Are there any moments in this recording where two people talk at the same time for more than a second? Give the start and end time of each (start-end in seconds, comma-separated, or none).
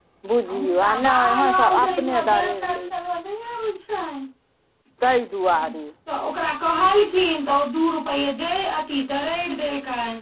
0.5-2.9